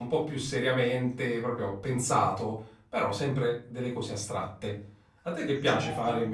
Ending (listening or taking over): taking over